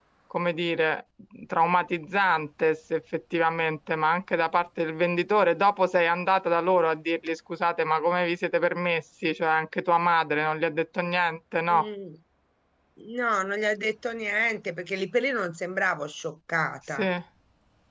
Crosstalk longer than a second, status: none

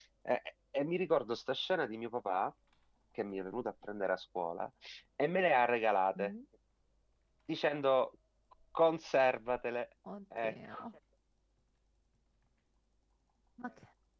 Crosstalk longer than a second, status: none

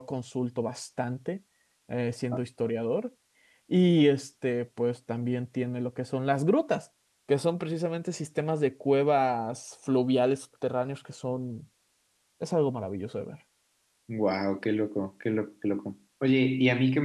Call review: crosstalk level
none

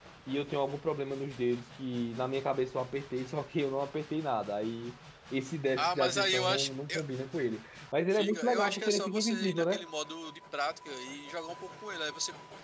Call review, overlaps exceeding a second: present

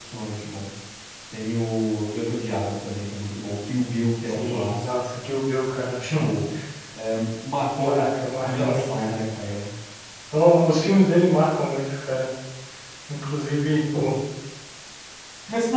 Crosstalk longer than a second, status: present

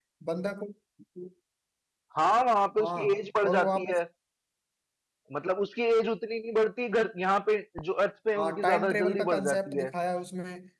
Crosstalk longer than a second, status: present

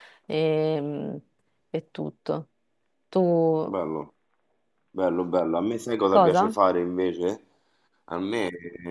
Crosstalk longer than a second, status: none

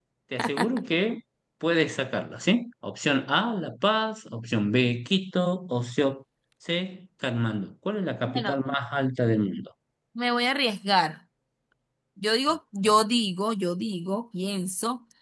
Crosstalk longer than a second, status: none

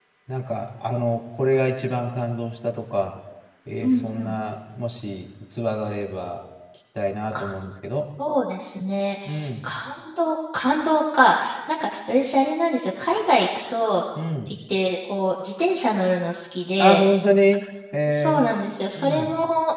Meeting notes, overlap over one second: none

